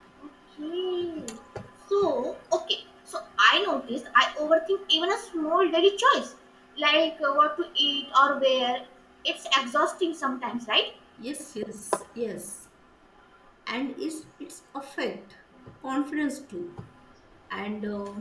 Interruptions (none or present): none